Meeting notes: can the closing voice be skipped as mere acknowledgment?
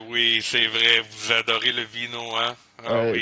No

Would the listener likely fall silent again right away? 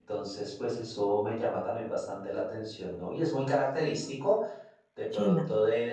Yes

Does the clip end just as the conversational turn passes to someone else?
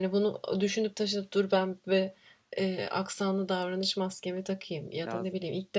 No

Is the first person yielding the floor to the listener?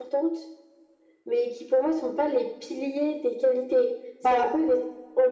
No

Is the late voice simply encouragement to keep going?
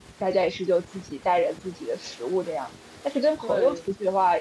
Yes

